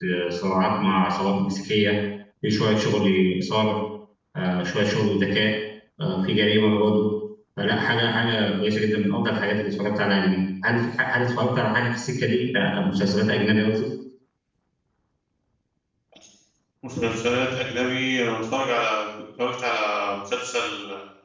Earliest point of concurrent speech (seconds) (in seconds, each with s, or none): none